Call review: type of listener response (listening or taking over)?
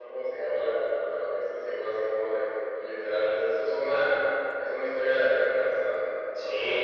taking over